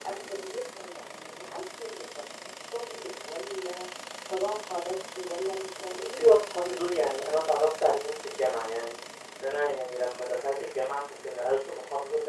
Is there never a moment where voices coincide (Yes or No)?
No